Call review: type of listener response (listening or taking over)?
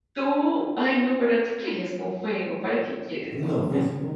taking over